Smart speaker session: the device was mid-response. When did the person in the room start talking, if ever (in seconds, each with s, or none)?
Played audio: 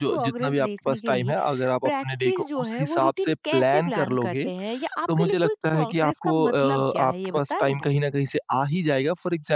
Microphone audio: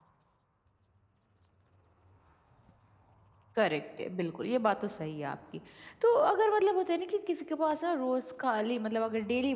3.5 s